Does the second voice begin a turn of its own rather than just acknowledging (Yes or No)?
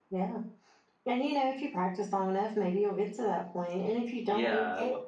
Yes